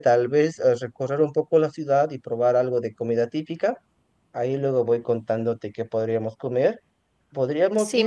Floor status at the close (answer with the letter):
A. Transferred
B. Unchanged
A